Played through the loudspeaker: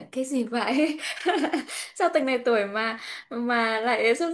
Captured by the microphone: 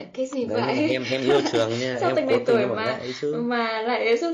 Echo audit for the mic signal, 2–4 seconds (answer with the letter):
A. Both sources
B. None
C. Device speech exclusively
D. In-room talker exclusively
A